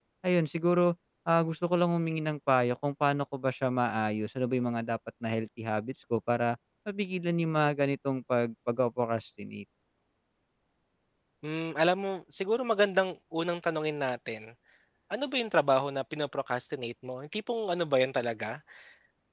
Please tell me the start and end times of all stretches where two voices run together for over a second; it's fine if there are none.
none

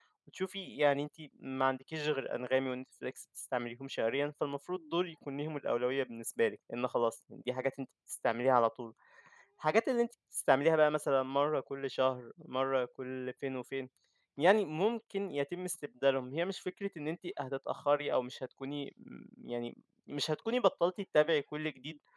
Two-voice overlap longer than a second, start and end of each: none

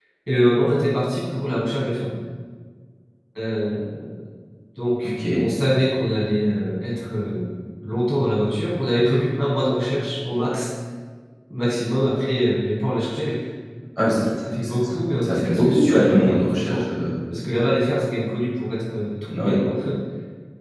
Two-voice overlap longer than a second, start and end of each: 15.2-16.8

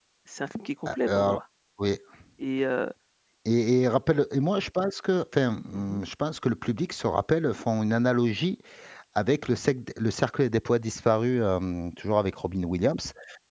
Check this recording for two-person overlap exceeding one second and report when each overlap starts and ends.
none

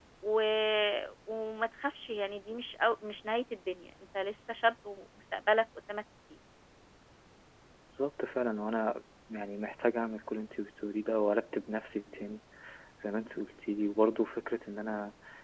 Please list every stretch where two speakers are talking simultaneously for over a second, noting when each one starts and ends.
none

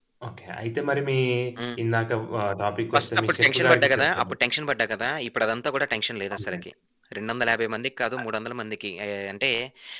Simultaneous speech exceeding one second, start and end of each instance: 3.0-4.3

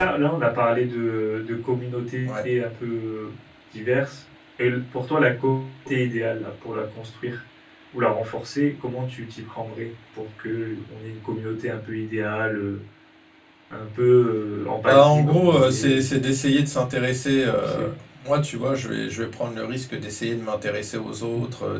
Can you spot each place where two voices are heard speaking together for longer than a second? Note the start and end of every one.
14.9-16.1

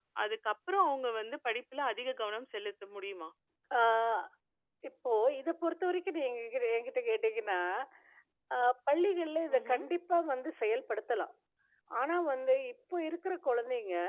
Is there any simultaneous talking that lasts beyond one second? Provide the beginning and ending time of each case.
none

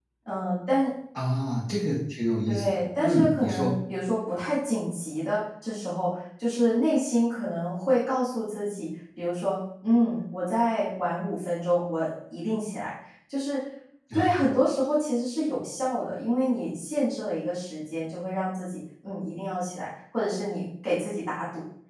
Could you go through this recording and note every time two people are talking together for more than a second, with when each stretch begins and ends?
2.5-3.7

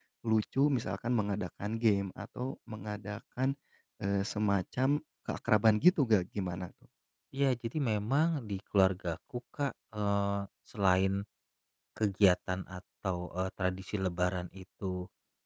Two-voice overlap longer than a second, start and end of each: none

